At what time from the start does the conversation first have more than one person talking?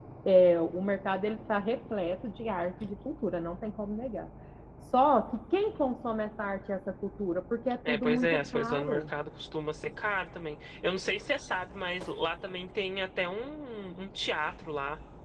7.8 s

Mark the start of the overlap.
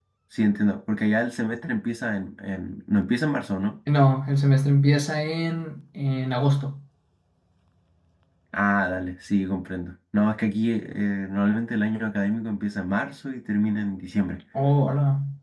none

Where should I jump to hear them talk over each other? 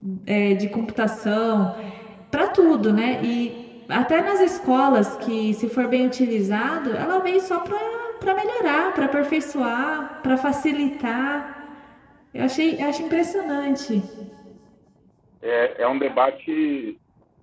none

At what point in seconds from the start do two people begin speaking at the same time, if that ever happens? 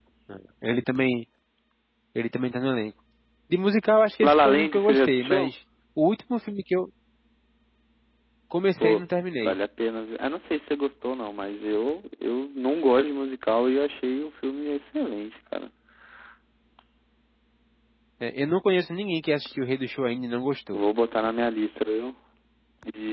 4.3 s

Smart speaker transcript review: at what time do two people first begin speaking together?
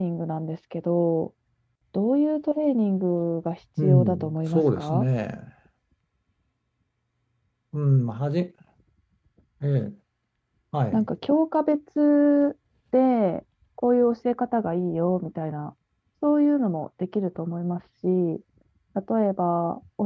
3.8 s

